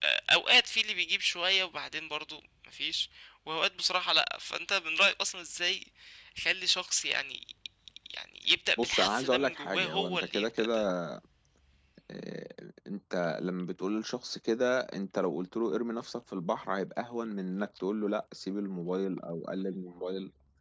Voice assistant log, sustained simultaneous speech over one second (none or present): present